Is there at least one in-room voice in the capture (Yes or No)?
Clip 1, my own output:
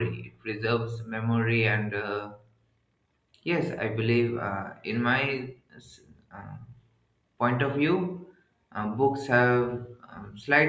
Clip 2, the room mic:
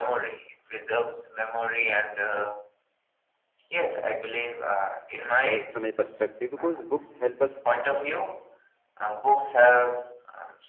Yes